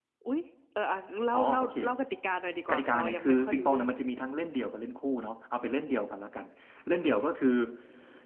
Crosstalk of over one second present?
Yes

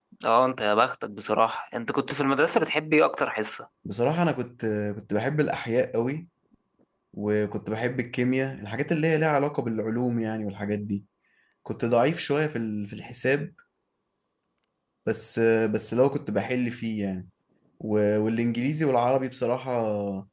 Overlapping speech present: No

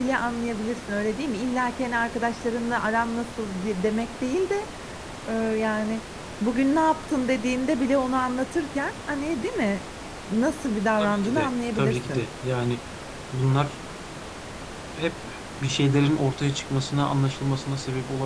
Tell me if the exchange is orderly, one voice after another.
No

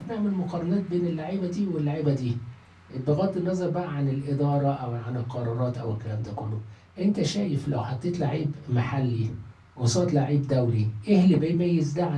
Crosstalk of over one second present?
No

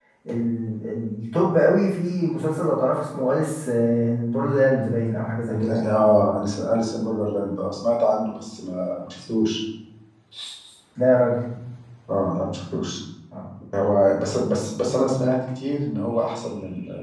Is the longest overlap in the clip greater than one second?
No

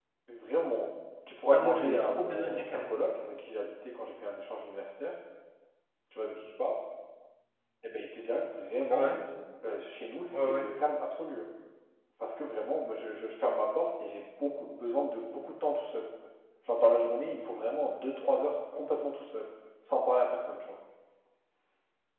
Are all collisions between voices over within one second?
No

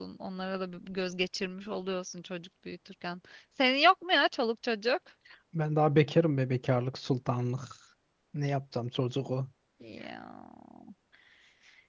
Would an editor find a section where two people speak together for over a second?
No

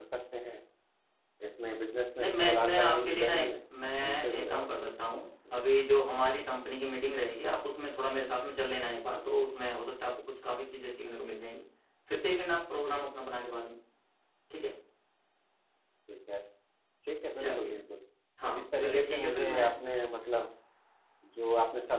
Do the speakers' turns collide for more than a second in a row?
Yes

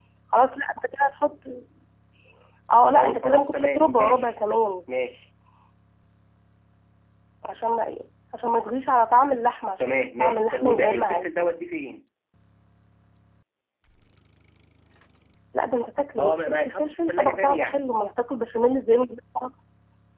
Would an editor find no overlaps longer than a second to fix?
No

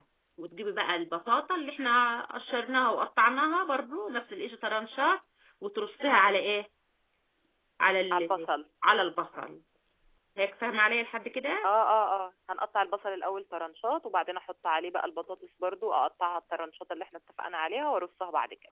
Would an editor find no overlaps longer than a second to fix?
Yes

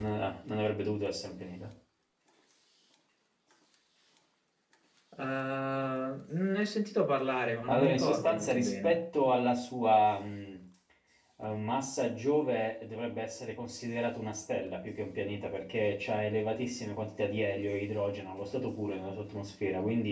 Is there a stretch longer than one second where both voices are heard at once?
Yes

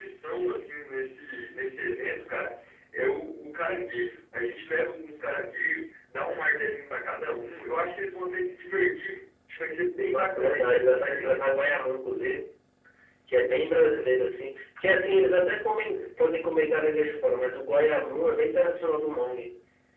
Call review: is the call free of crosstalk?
No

